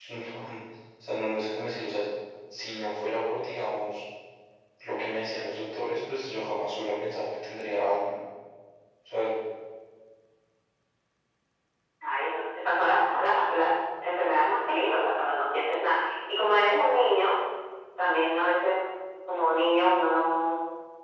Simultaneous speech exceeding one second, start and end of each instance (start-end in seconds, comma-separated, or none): none